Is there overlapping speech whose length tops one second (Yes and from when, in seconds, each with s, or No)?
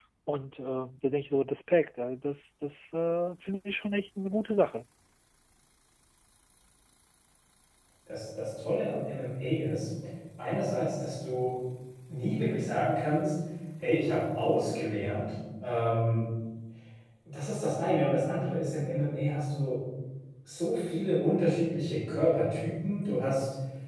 No